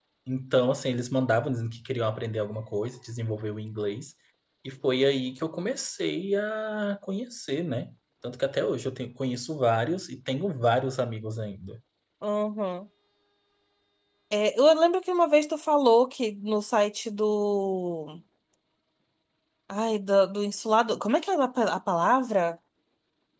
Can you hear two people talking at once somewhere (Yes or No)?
No